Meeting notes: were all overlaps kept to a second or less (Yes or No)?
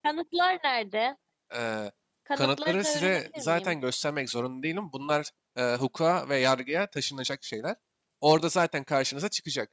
No